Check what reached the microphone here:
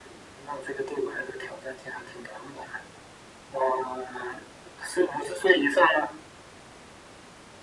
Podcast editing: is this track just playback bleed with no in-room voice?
Yes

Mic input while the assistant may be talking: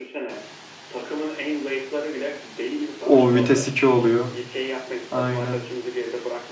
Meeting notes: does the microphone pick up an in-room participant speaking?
Yes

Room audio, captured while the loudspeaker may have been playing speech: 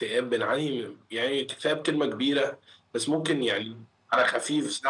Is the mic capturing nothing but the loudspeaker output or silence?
Yes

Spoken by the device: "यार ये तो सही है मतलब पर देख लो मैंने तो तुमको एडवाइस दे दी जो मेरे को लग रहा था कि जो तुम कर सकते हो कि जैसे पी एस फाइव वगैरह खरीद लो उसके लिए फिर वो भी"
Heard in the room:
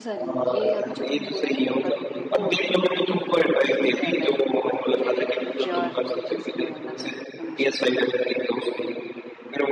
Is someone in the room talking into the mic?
Yes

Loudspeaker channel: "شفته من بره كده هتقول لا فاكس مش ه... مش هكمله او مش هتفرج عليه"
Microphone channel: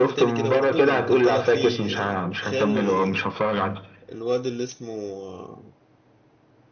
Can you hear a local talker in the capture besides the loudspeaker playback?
Yes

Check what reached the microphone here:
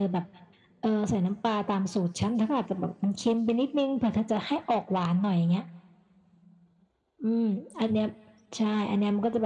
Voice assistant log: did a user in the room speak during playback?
No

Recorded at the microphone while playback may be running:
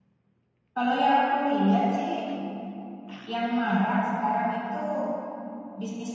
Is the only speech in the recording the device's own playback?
No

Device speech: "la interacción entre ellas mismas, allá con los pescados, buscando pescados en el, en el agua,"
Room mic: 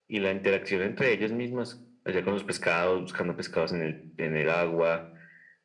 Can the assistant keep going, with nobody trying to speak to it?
Yes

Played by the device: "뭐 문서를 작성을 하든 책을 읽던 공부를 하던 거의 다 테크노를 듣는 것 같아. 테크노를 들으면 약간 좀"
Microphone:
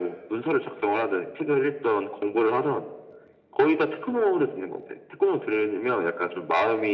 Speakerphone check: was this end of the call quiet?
Yes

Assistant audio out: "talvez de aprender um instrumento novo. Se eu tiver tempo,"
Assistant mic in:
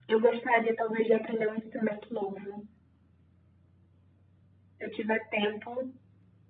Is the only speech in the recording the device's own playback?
Yes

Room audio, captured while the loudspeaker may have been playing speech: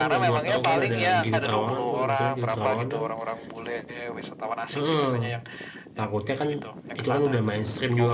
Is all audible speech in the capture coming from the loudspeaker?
No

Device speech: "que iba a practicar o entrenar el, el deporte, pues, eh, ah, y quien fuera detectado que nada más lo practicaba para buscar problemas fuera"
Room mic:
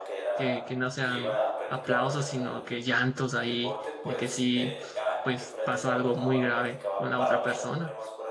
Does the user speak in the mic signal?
Yes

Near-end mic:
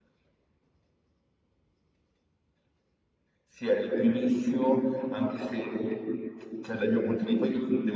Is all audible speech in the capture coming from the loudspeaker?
Yes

